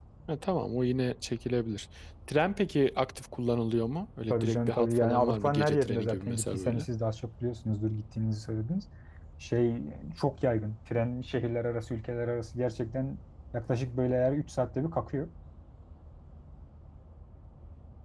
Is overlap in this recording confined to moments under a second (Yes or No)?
No